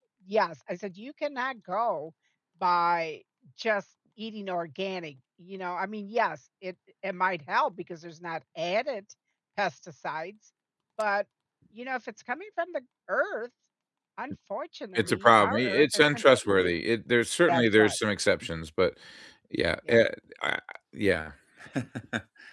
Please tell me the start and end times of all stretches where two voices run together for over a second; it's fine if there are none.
14.9-16.7

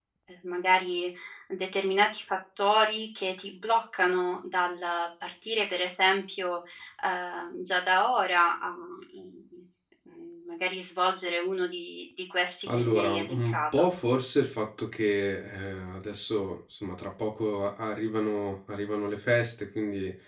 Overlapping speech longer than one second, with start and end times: 12.7-13.9

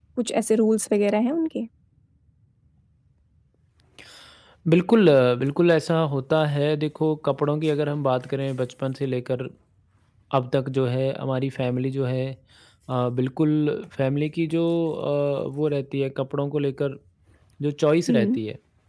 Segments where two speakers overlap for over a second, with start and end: none

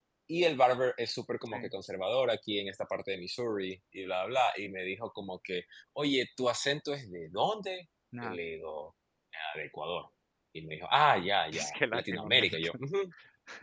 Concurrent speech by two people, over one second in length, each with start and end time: 11.5-12.7

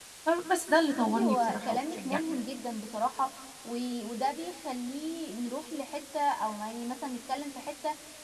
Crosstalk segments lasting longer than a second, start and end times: 0.9-2.2

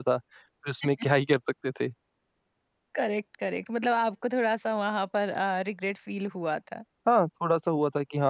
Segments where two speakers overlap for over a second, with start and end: none

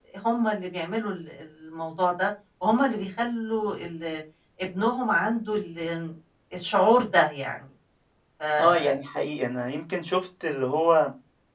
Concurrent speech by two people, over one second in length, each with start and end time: none

